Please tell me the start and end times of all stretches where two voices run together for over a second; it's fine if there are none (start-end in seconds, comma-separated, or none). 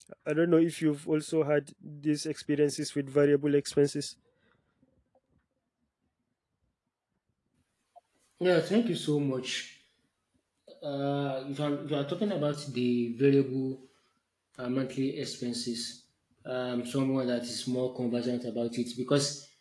none